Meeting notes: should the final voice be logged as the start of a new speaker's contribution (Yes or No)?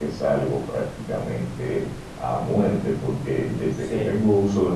No